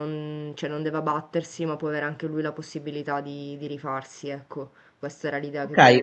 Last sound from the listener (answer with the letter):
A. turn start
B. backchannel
A